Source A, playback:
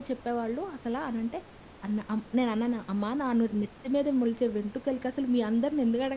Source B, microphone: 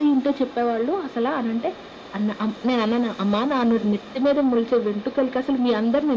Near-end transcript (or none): none